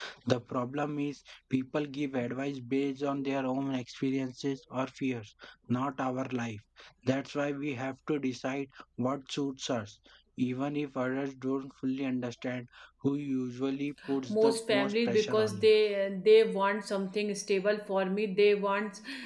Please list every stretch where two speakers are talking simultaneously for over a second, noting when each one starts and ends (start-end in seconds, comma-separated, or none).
14.3-15.7